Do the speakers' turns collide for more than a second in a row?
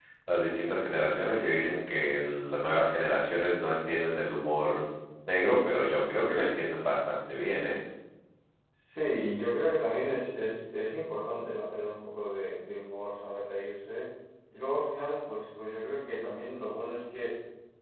No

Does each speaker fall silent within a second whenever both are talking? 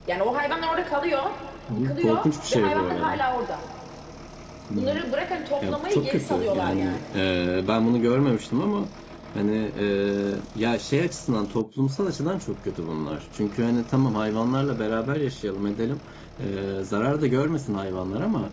No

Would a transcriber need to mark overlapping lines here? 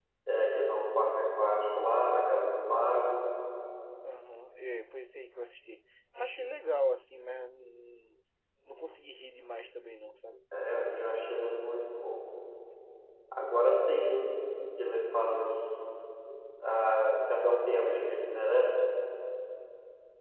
No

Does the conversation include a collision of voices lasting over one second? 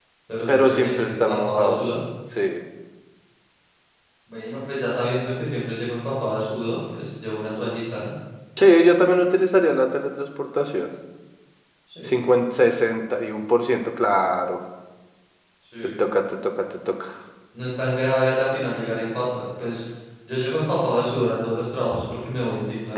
Yes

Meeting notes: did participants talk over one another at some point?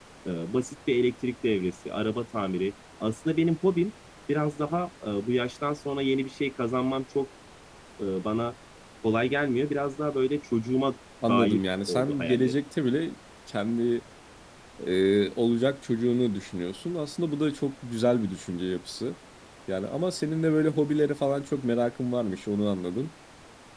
Yes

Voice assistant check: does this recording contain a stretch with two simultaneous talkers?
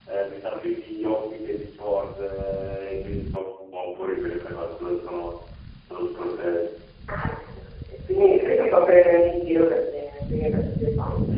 No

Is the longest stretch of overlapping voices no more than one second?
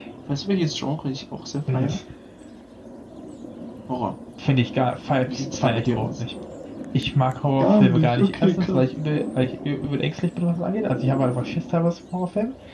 No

